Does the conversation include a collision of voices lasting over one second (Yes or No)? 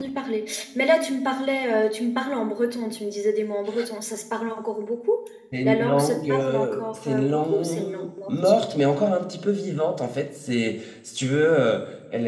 Yes